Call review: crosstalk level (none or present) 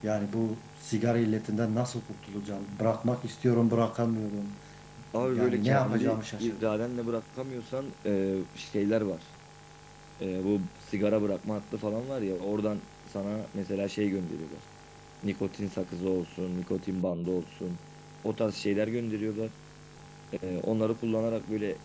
present